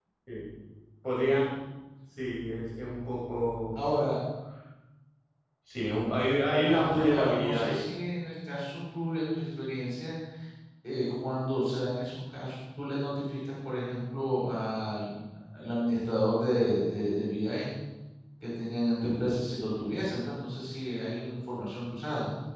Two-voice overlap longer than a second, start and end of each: 6.5-7.8

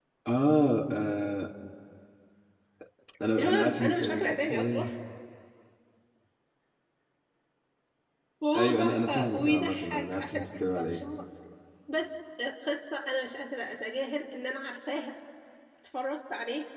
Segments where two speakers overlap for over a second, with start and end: 3.4-4.8, 8.6-11.1

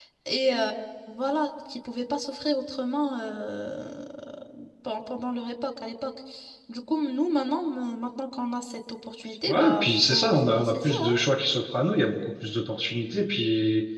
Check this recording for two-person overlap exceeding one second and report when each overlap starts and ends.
9.5-11.1

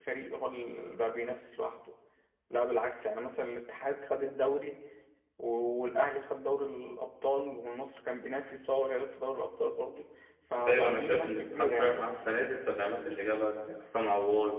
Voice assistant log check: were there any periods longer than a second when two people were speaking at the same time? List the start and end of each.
10.7-12.0

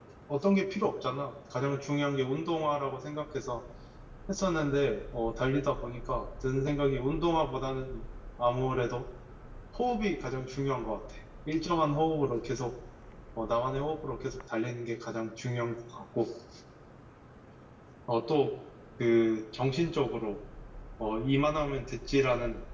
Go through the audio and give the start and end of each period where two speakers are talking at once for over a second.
none

